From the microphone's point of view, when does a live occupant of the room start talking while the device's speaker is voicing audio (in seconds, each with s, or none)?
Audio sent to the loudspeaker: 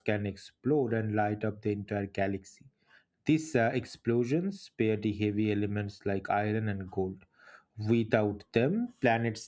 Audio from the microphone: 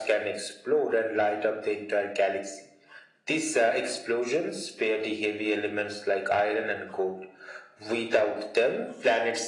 none